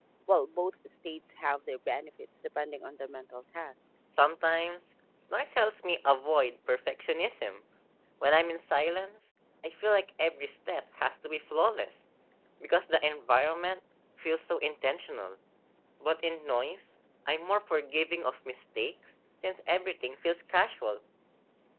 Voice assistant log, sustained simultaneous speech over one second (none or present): none